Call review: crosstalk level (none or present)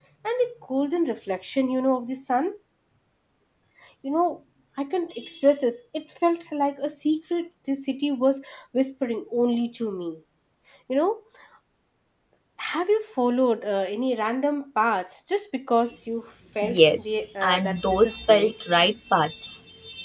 present